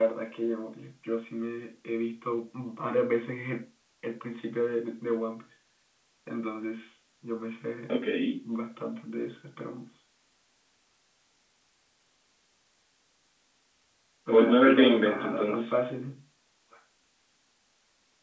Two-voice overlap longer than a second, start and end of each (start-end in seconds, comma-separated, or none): 14.3-15.6